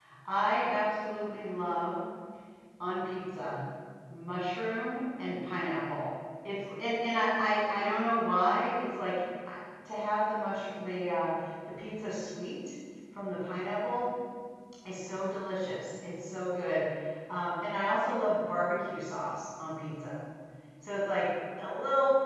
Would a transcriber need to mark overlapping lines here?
No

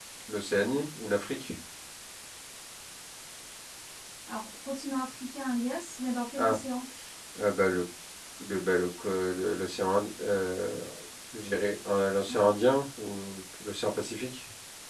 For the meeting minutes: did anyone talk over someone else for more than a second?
No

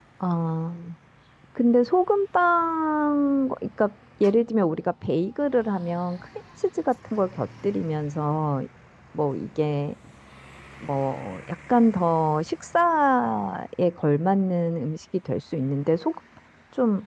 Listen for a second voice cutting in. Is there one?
No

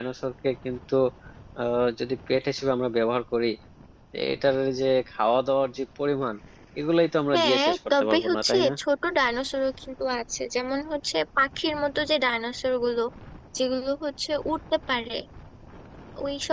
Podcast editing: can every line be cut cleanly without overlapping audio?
No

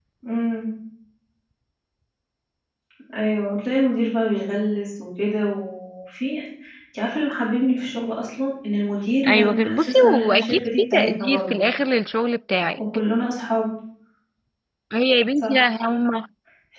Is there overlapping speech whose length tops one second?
Yes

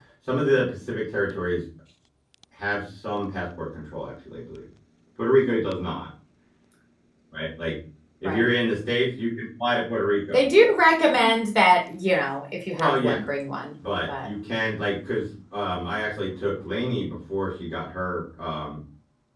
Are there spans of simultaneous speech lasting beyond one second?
No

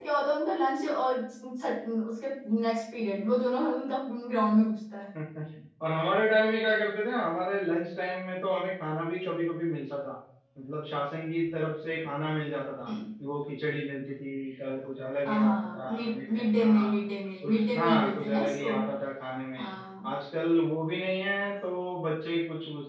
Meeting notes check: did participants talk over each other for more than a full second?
Yes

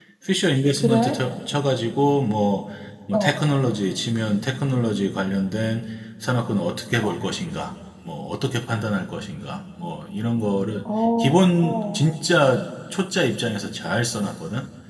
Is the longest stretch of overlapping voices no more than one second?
Yes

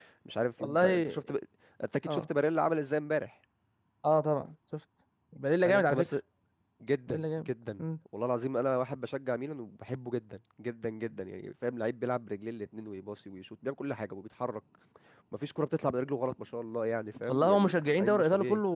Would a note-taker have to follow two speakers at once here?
Yes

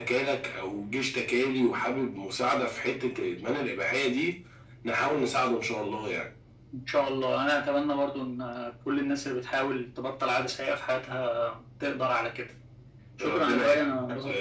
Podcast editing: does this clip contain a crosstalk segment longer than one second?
Yes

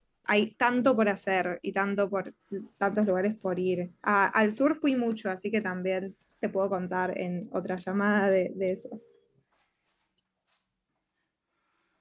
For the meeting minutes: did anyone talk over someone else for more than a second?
No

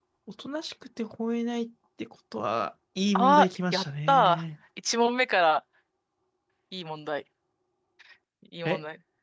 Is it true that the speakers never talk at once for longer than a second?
No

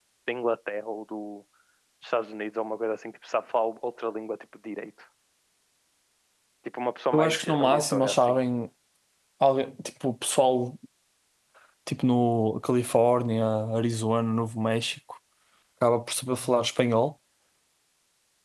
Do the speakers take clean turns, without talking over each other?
No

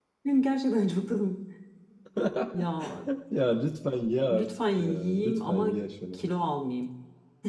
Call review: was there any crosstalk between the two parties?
Yes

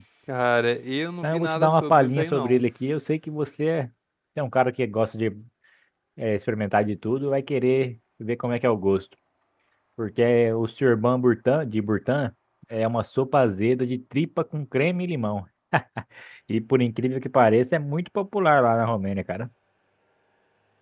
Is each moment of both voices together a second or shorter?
No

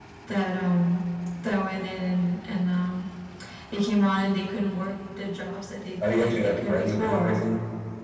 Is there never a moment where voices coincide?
No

